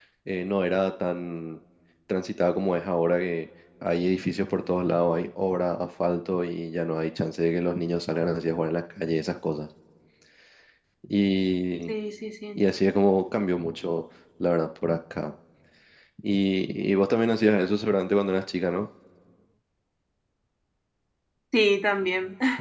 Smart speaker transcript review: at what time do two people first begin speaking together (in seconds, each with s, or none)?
none